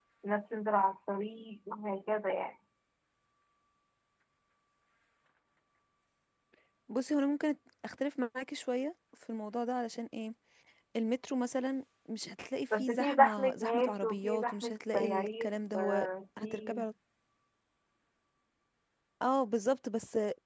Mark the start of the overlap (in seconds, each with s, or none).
12.7 s